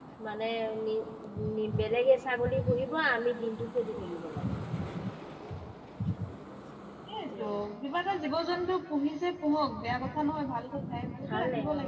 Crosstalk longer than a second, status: none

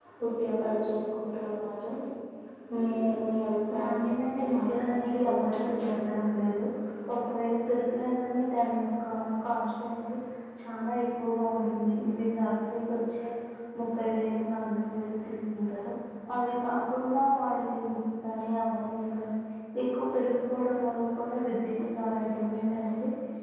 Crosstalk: present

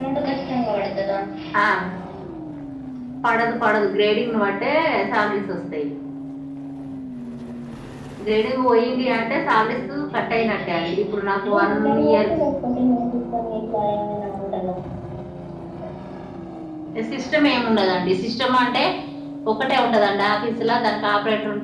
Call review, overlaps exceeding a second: present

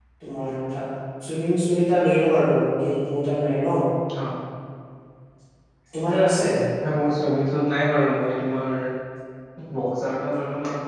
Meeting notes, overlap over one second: none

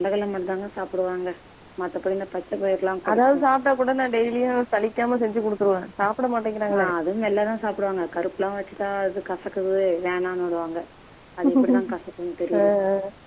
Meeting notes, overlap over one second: none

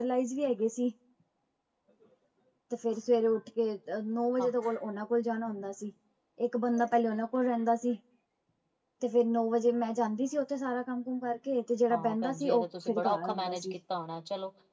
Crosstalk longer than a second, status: present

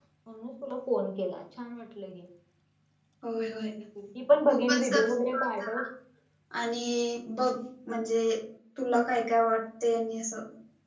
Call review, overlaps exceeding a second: present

